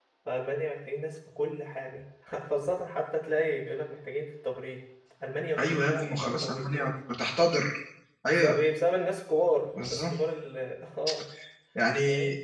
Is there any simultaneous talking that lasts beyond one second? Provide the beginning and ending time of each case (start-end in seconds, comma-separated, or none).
5.6-6.9